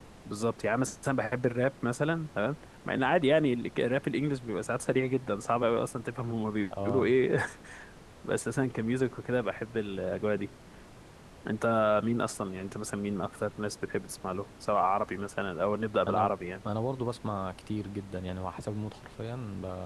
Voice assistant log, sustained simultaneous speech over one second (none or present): none